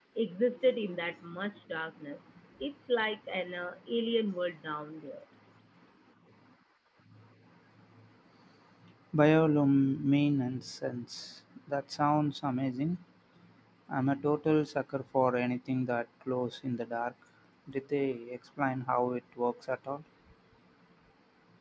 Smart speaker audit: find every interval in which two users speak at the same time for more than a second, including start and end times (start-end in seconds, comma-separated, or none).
none